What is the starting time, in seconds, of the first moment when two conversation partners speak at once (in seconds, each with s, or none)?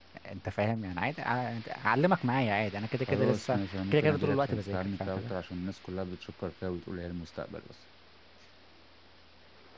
3.1 s